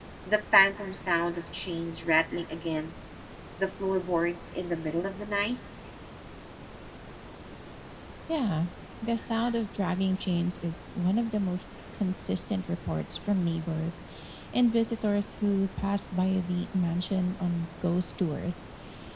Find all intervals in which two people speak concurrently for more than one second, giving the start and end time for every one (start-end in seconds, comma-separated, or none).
none